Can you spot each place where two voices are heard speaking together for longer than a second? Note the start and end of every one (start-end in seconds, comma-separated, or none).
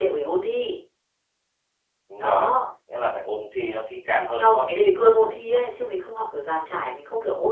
4.3-5.6